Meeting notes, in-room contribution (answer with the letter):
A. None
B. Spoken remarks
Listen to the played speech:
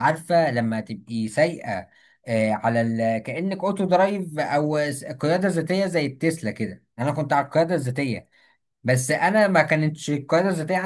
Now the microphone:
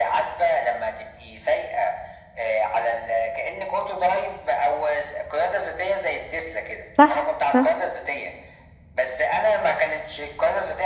B